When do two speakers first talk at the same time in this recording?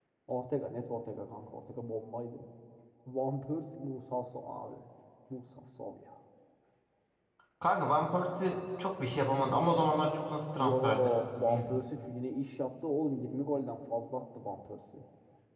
10.6 s

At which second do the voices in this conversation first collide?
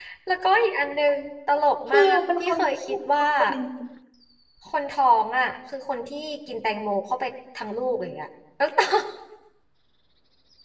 1.9 s

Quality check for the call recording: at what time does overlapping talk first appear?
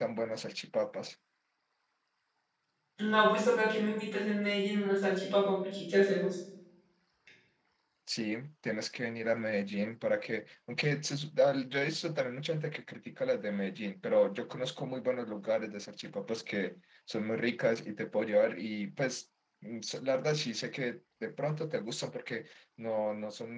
none

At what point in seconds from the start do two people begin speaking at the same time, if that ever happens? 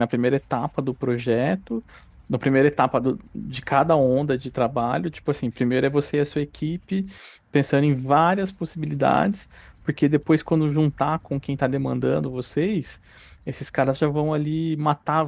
none

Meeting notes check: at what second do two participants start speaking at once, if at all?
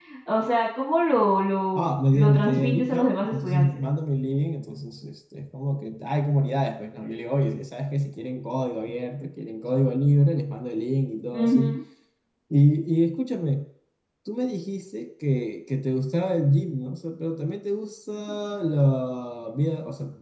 1.8 s

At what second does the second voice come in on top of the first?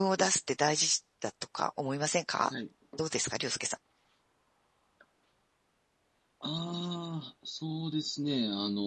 none

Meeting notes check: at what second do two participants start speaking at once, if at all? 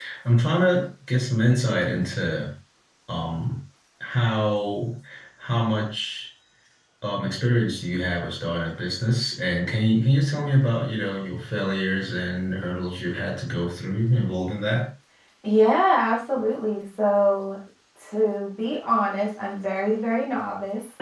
none

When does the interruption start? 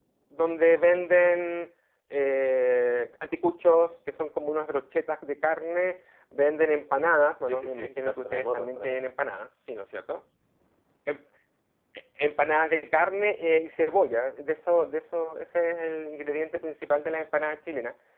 7.5 s

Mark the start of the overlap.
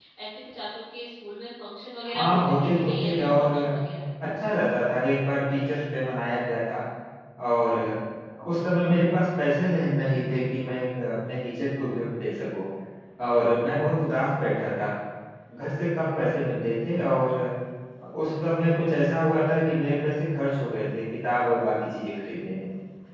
2.0 s

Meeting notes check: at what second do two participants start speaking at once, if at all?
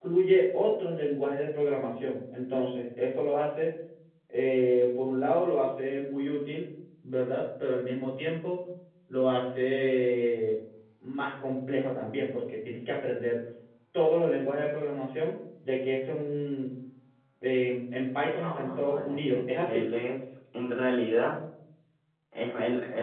18.3 s

